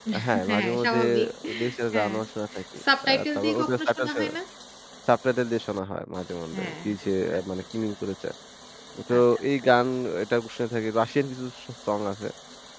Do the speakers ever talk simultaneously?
Yes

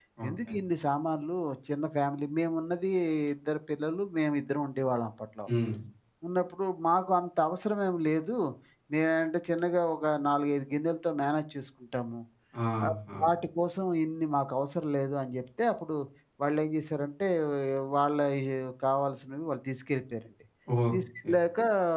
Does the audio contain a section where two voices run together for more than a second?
No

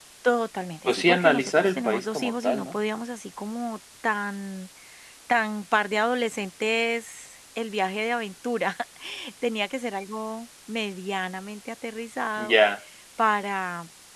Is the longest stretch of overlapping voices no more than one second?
No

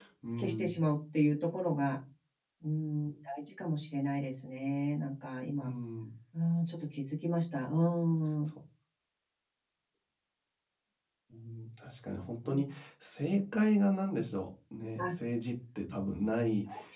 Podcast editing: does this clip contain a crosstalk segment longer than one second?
No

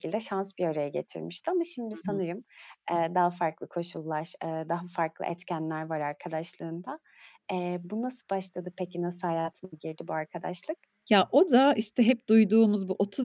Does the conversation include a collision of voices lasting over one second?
No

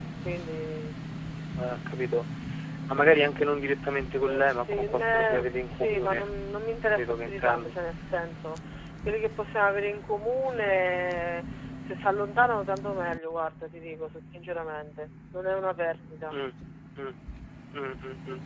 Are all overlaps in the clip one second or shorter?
No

